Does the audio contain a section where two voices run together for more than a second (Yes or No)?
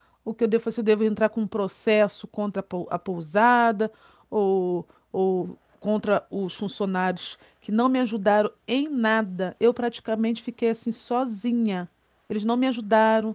No